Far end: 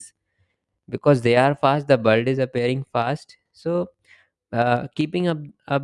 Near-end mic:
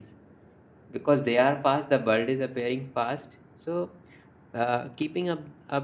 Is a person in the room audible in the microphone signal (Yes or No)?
No